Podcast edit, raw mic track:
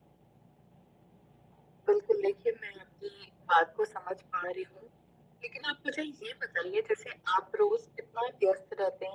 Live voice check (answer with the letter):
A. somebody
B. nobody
B